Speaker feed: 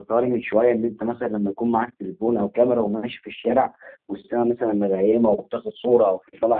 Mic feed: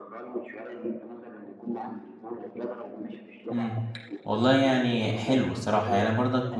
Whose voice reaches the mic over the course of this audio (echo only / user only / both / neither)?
both